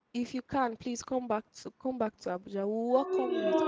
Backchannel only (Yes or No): No